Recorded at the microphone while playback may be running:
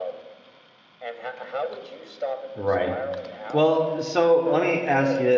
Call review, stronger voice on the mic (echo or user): user